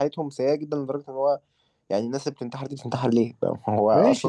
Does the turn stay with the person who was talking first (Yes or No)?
No